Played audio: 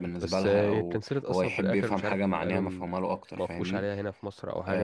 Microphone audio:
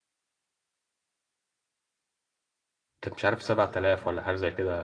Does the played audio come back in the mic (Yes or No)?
No